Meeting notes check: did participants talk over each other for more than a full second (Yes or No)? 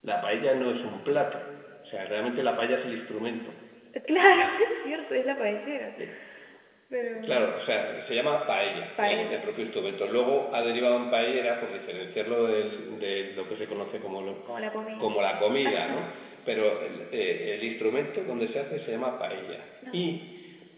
No